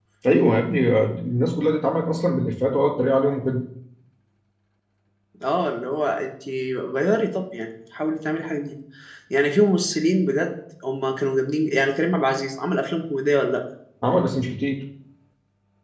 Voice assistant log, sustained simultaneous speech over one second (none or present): none